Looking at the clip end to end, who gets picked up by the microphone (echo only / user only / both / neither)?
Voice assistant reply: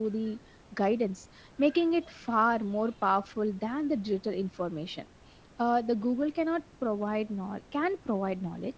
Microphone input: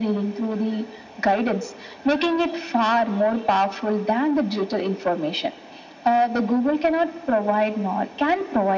echo only